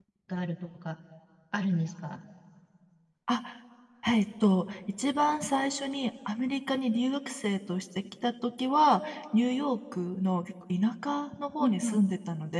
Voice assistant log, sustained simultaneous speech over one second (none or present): none